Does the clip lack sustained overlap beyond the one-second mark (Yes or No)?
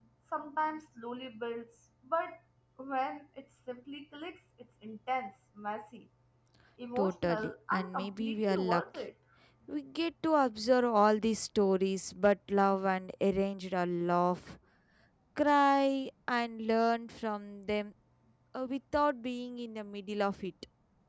No